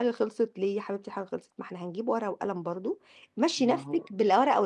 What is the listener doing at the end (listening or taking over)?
listening